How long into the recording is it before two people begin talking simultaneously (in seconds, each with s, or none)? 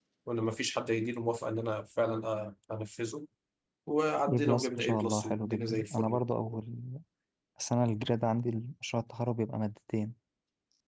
4.3 s